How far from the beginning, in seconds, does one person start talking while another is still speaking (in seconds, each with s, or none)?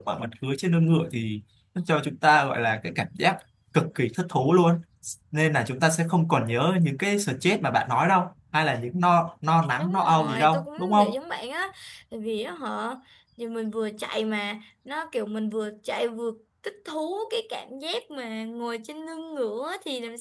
9.8 s